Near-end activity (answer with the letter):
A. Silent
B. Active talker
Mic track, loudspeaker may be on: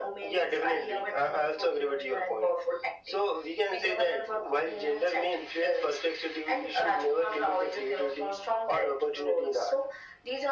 A